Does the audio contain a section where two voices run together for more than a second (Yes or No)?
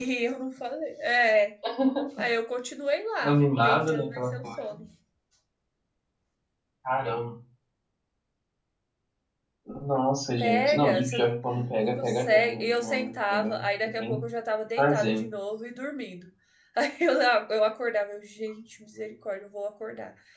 Yes